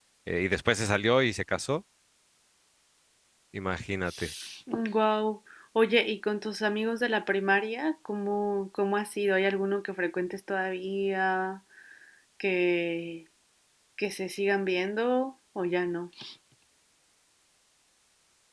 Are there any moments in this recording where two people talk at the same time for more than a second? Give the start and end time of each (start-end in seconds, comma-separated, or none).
none